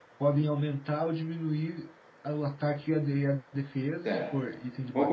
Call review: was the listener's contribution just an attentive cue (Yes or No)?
No